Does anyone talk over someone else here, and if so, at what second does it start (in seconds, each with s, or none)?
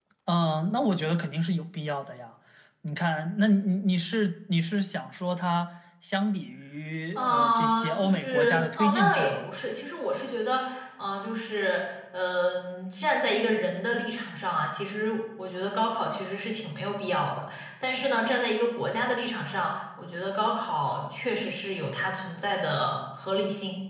7.2 s